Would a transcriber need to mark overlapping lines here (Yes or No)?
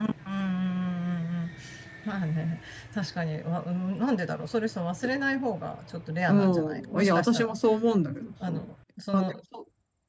Yes